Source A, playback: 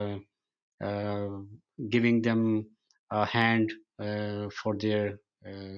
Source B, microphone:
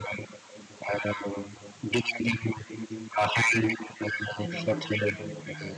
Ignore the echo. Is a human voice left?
Yes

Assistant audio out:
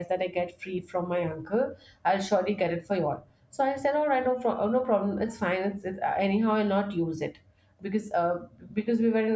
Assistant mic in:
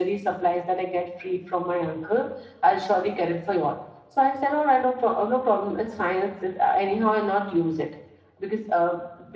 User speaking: No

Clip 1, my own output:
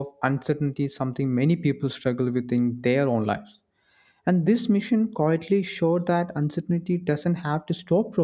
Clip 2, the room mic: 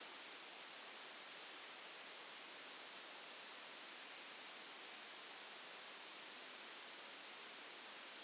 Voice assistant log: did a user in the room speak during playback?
No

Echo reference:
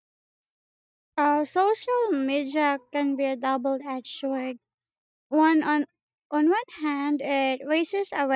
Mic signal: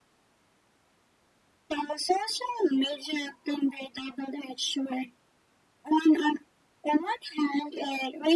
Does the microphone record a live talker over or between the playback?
No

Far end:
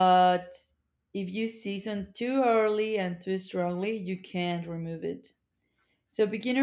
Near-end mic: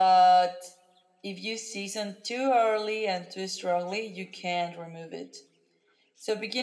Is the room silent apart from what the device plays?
Yes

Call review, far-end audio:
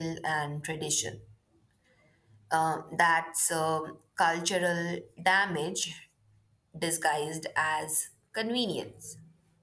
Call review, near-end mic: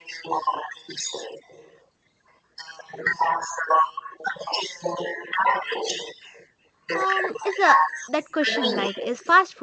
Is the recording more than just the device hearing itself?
Yes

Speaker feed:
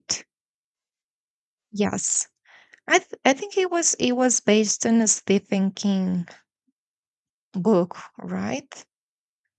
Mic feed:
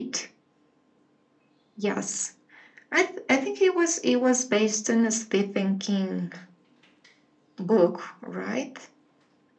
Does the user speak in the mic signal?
No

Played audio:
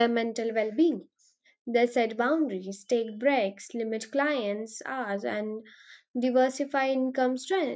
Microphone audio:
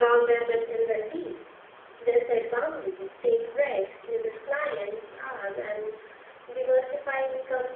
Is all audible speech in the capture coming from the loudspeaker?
Yes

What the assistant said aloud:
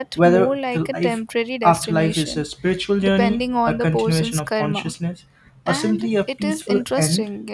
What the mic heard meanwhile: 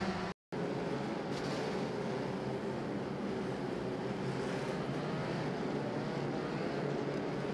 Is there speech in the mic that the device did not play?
No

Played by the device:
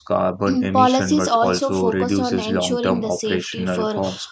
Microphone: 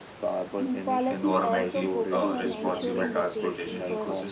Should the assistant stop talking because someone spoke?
Yes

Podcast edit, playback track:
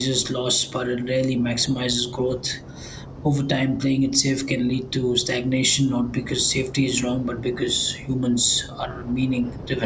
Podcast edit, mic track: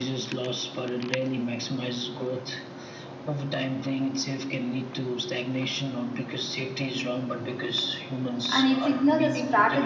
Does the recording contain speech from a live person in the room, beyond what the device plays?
Yes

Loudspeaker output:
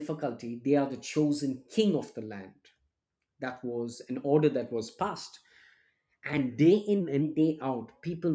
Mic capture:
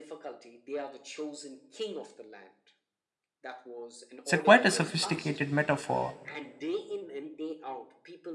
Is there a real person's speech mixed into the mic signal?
Yes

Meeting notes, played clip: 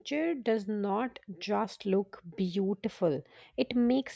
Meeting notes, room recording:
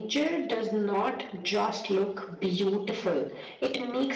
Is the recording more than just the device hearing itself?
No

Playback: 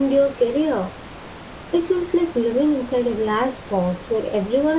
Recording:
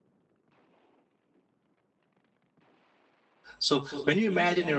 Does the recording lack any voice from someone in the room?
No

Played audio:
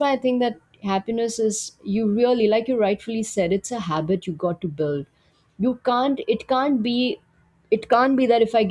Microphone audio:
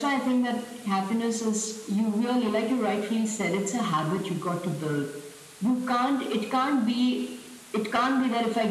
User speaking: No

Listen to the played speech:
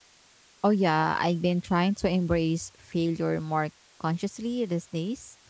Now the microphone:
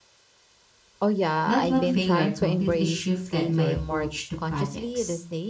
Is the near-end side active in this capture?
Yes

